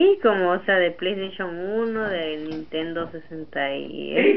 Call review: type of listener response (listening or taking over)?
taking over